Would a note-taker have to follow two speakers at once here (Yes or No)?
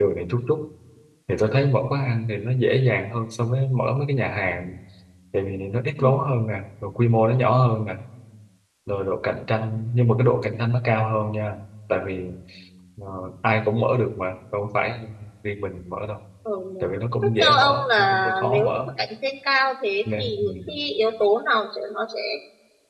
Yes